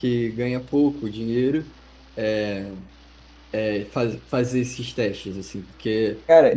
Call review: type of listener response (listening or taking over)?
listening